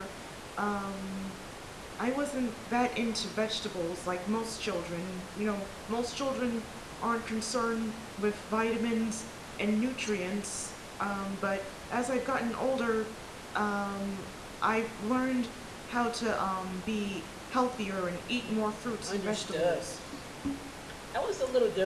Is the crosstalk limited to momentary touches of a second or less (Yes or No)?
No